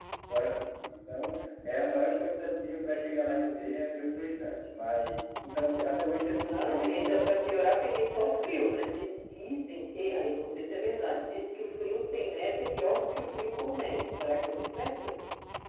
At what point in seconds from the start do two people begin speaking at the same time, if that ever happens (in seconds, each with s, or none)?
6.4 s